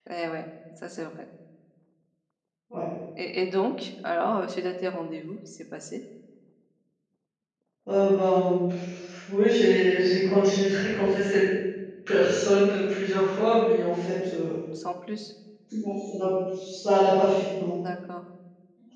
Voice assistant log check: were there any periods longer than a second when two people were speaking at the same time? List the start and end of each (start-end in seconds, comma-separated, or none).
none